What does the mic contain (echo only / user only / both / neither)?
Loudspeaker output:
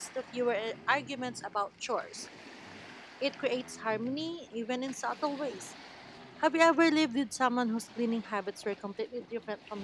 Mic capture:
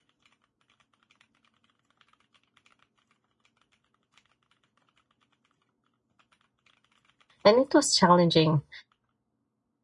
user only